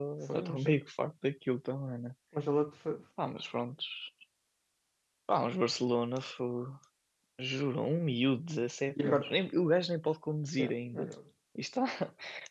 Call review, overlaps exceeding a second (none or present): none